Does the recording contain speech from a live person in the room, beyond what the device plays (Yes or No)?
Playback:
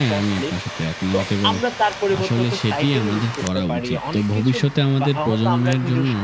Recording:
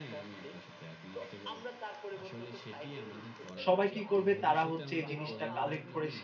Yes